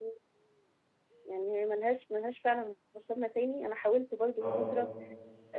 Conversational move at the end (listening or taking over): listening